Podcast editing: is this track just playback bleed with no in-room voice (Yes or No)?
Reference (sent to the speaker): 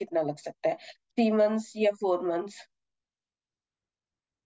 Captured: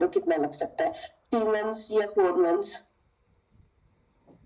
Yes